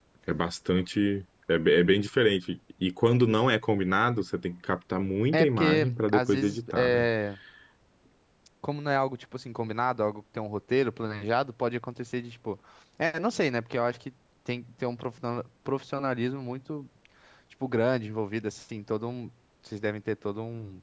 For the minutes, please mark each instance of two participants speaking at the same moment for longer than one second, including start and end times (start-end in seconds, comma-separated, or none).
5.3-7.1